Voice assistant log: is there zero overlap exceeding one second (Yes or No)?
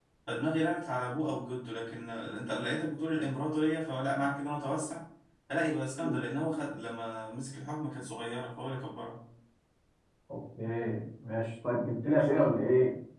Yes